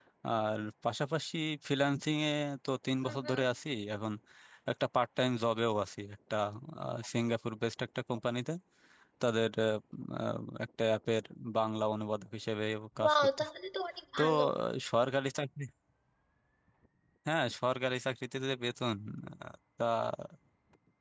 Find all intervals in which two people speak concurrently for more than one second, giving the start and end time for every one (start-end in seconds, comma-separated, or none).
none